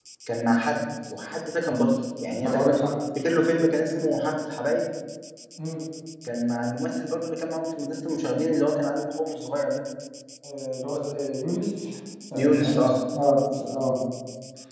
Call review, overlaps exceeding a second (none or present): none